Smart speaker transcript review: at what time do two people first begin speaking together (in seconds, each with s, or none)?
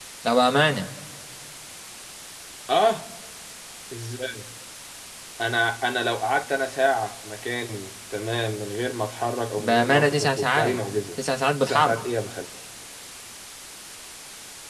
9.6 s